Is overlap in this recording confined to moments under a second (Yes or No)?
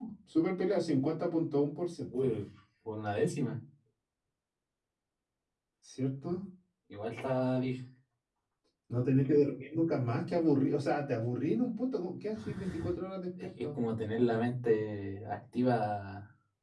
Yes